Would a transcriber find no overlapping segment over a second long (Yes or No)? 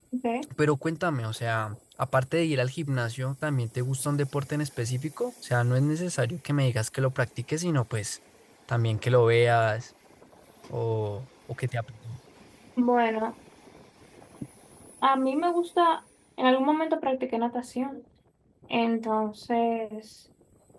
Yes